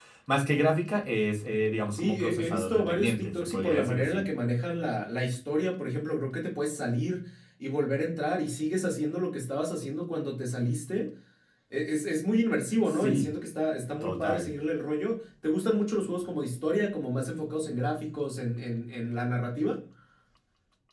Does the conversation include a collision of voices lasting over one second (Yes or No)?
Yes